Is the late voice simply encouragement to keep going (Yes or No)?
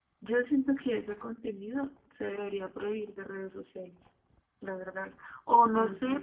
Yes